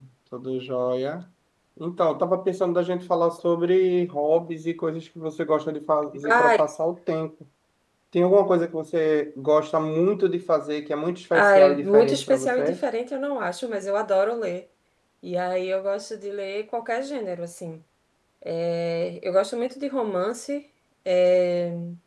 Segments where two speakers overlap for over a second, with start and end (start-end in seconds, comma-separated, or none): 11.3-12.8